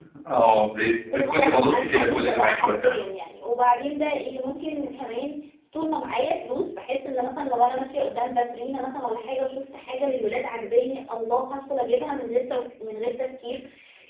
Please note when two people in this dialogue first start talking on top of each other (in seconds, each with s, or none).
1.1 s